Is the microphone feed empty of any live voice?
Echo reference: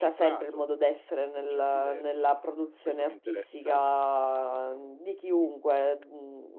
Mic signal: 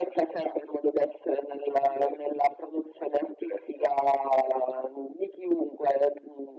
Yes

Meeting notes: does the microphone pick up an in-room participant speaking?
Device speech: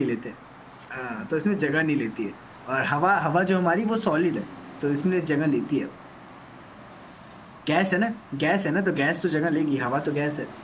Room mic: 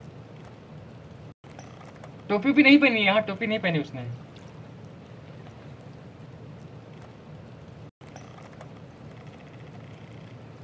Yes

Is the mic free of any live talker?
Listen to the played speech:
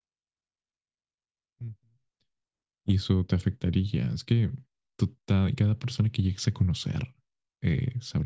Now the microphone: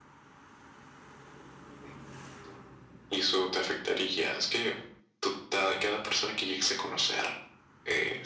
Yes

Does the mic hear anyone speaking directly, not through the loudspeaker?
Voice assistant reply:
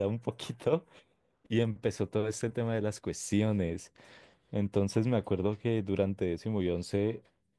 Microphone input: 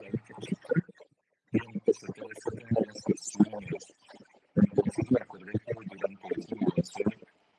No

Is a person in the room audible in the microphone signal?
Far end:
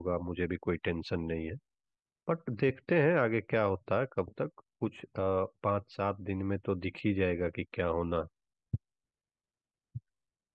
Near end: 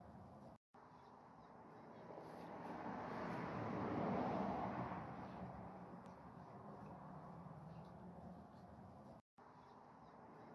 No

